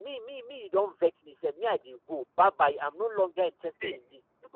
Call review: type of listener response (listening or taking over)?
listening